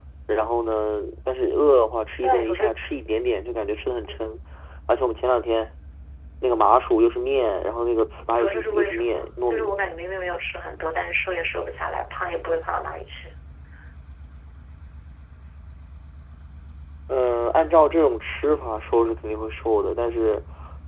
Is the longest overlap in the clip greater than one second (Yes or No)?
Yes